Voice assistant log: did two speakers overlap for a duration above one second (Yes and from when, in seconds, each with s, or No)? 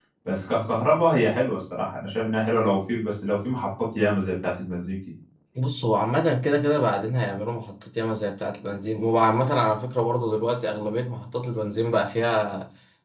No